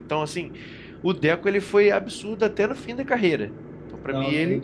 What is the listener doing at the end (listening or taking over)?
taking over